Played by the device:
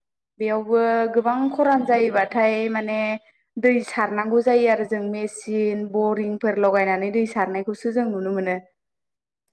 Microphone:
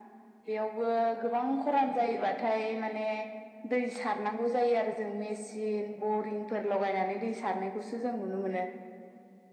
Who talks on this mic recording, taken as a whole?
echo only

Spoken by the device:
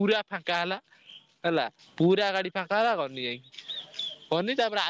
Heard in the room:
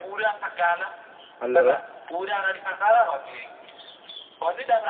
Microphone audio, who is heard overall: both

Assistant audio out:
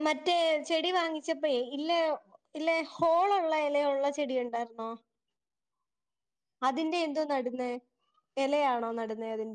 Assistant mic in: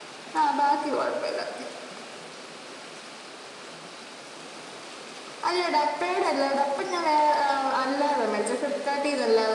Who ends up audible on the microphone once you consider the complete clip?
user only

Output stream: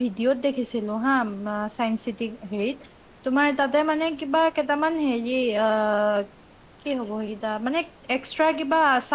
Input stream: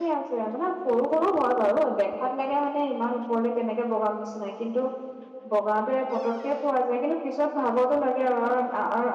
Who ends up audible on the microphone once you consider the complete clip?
user only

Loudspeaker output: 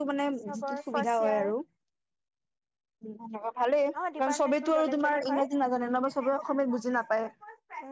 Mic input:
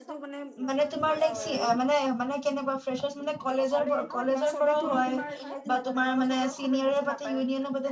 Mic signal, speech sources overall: both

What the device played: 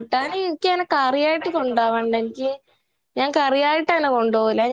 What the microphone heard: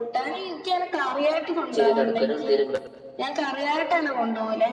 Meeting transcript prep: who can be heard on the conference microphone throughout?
both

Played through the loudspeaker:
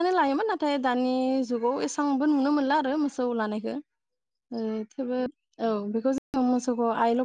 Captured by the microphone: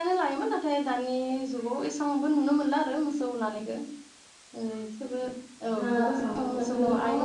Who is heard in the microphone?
both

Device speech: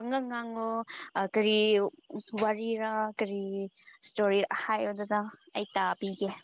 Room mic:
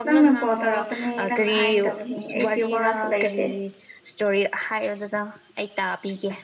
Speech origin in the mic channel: both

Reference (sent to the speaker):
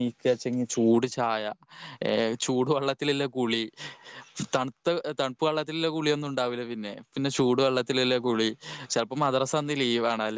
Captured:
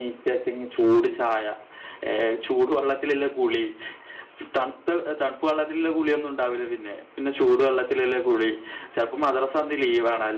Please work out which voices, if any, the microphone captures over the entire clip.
echo only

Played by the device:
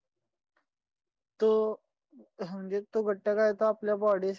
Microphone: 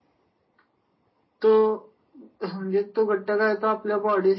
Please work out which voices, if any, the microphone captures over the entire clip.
echo only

